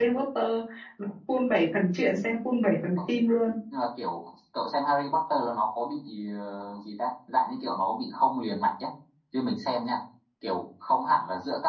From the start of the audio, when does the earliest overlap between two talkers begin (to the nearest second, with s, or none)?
none